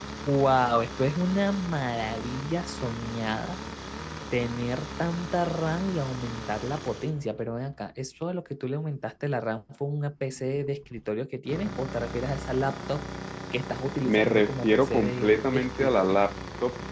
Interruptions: present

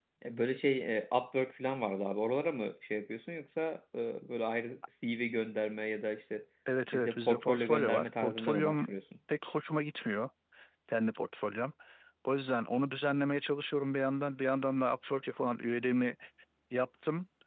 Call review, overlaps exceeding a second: present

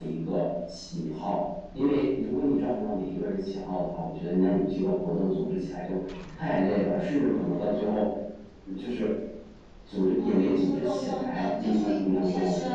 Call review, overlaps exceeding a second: present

